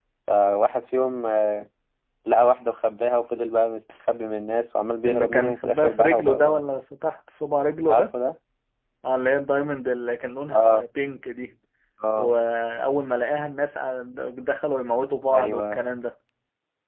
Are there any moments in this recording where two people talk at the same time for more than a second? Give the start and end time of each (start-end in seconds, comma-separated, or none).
5.0-6.6